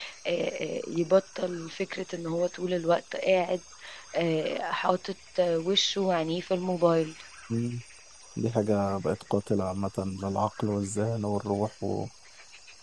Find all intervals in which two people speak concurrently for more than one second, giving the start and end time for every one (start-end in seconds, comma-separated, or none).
none